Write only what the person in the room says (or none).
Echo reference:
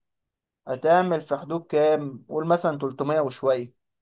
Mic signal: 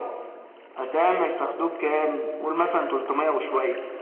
طيب